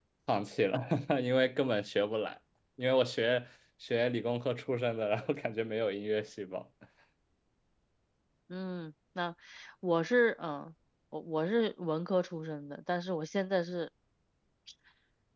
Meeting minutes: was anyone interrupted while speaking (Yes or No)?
No